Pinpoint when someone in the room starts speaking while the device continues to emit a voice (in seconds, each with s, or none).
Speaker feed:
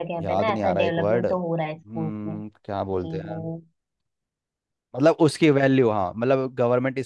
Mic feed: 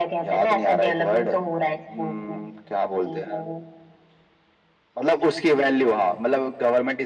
none